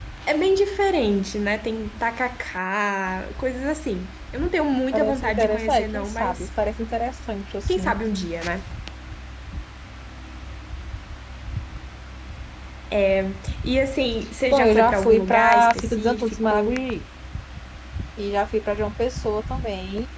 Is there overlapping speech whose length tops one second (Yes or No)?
Yes